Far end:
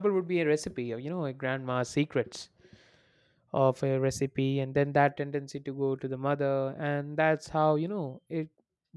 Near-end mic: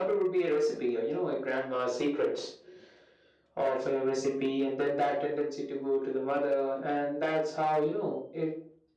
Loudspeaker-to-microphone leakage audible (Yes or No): Yes